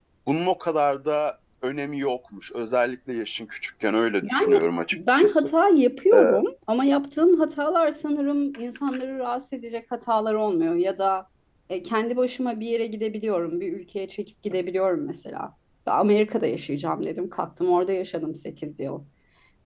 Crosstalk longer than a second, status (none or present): present